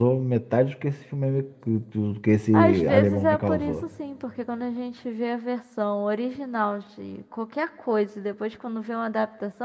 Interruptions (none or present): present